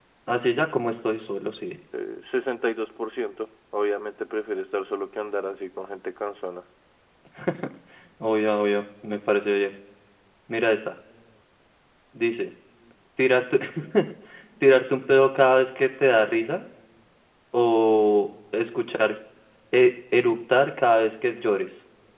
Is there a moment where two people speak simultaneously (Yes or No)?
No